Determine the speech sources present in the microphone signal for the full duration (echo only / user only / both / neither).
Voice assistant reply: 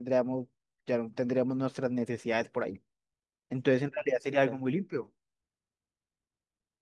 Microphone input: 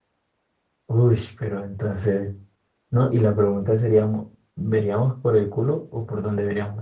user only